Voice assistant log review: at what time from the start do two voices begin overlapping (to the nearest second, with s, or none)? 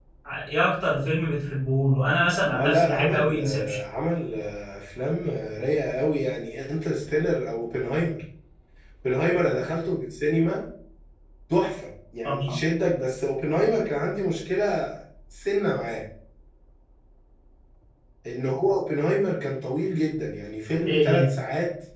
3 s